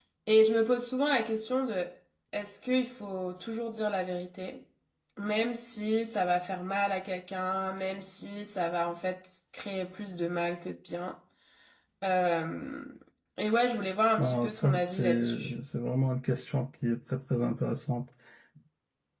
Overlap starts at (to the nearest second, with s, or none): 14 s